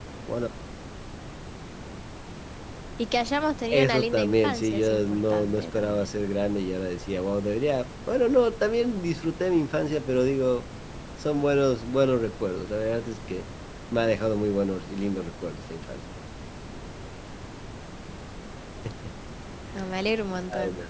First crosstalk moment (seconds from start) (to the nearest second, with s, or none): 4 s